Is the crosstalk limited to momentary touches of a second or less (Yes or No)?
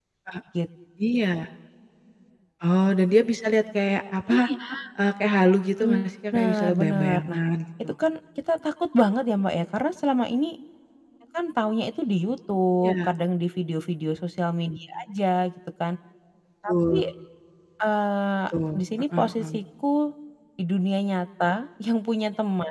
No